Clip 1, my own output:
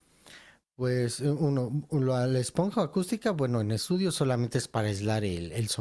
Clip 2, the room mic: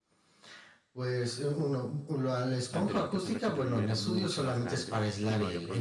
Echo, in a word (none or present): present